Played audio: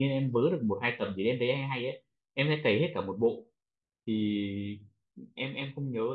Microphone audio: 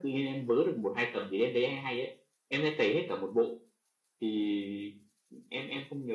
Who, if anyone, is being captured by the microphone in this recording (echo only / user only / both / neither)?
echo only